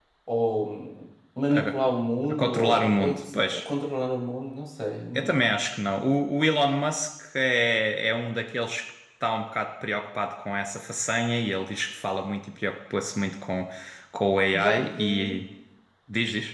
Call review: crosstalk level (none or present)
present